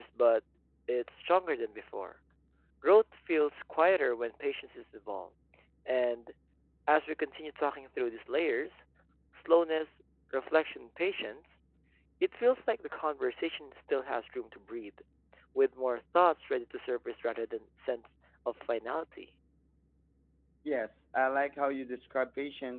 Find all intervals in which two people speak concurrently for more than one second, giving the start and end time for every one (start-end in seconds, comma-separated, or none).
none